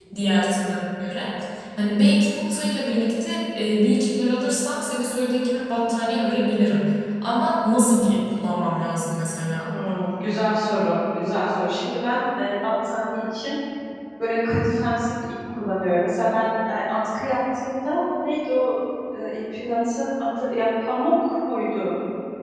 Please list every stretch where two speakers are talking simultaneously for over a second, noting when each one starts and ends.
none

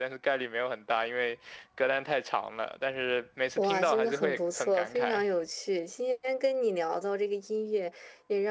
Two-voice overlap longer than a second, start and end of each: 3.6-5.2

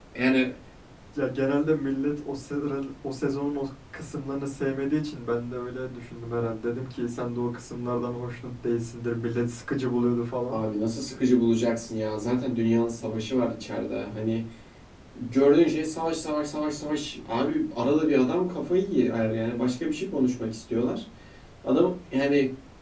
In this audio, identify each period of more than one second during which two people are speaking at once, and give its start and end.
none

